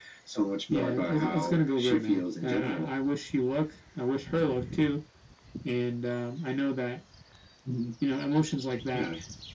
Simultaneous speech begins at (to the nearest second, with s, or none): 1 s